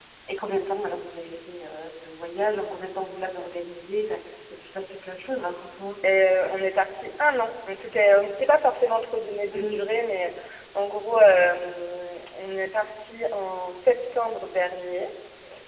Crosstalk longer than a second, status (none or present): none